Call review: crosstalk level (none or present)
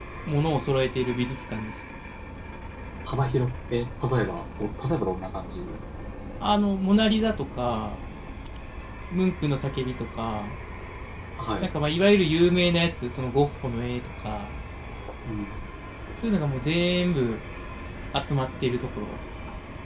none